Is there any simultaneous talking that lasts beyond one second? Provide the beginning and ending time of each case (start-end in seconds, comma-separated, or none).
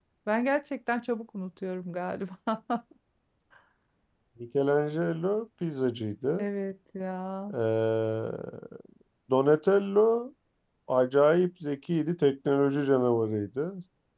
none